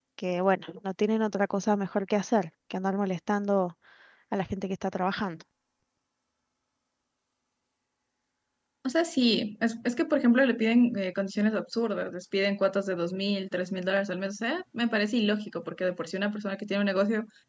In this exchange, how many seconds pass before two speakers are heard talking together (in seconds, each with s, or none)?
none